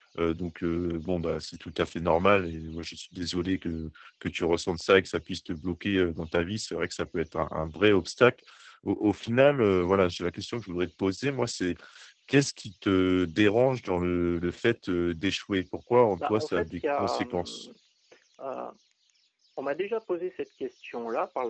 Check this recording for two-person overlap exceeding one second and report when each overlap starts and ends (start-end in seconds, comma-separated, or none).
16.2-17.6